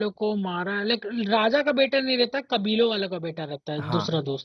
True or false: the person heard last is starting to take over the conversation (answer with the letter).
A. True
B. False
A